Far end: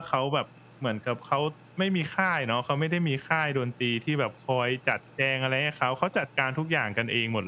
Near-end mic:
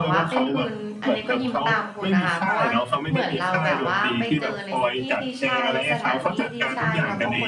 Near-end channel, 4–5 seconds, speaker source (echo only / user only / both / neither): both